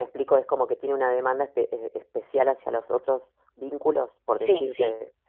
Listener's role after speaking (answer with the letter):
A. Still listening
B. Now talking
B